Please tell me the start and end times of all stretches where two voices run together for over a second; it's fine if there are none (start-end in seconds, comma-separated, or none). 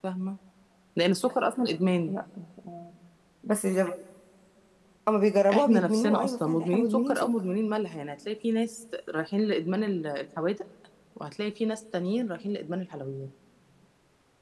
5.5-7.3